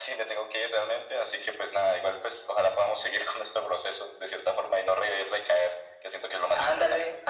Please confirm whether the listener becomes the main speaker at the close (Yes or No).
Yes